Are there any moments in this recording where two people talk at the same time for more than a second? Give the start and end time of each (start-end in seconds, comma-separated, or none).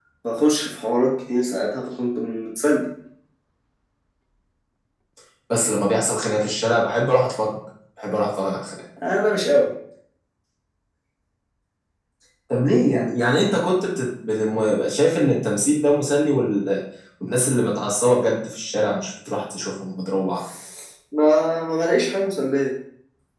none